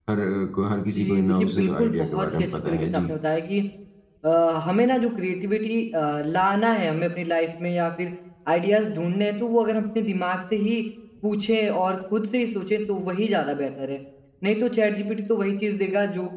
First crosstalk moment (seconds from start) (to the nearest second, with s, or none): 1 s